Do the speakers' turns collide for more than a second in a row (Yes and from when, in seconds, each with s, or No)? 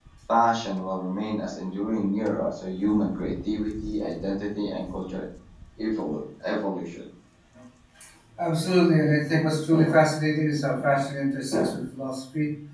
No